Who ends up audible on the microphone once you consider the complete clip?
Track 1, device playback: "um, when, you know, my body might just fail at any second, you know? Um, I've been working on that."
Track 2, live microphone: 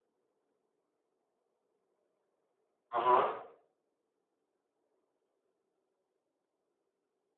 user only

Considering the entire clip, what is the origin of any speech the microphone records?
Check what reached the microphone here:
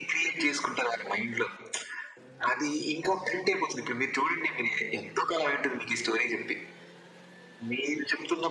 echo only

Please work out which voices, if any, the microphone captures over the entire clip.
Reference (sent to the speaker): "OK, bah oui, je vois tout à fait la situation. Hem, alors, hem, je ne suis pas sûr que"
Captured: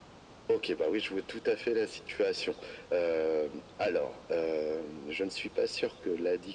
echo only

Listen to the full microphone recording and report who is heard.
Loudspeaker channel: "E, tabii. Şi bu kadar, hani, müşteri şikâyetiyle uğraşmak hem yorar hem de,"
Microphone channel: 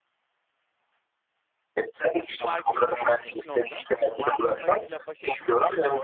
both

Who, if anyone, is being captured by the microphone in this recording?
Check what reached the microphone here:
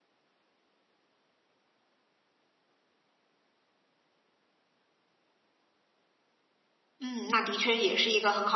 user only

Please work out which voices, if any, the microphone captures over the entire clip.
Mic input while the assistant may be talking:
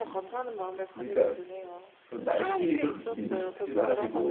both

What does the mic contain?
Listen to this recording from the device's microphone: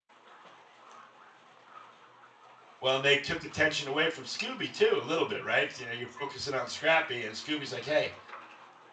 user only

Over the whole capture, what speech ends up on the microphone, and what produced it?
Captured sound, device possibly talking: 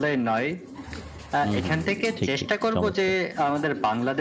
both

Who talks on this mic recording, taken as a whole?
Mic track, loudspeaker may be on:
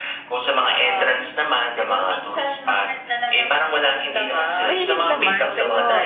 both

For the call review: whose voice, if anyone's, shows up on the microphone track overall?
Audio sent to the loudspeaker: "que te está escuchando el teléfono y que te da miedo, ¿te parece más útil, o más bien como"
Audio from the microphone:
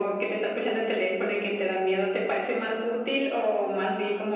echo only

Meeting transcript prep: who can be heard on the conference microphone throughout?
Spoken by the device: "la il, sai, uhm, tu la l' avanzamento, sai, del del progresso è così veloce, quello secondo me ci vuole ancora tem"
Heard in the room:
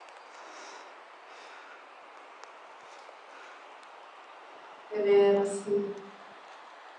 user only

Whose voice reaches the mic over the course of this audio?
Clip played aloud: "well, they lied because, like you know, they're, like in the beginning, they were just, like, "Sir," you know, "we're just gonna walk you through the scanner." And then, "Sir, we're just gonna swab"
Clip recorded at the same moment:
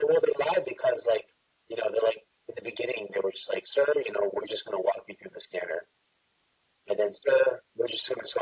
echo only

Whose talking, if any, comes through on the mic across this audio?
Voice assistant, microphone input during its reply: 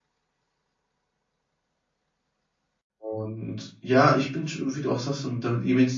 user only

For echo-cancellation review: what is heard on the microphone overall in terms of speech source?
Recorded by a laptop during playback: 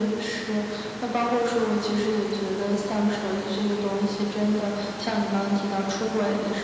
echo only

